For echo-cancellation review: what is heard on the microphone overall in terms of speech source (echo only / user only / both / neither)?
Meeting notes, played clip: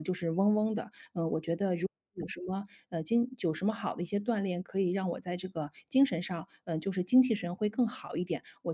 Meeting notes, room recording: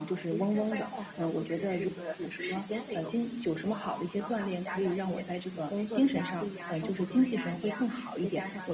both